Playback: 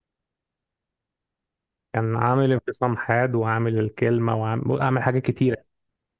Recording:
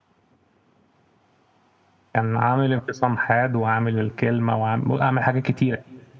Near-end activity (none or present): none